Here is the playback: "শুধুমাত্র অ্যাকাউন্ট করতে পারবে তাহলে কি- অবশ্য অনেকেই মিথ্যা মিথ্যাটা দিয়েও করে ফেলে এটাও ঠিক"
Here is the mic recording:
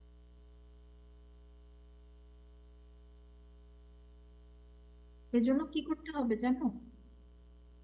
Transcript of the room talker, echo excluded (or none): এজন্য কি করতে হবে জানো